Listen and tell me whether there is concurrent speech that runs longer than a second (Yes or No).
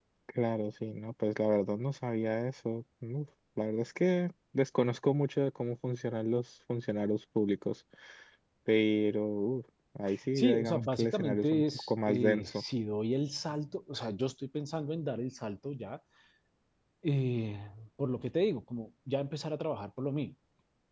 Yes